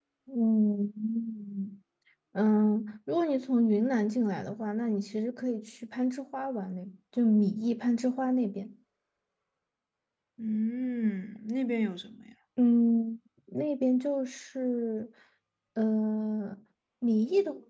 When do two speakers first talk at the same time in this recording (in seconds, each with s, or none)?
none